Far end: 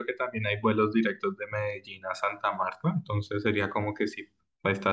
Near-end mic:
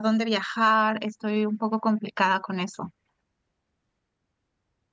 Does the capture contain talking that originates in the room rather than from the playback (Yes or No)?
Yes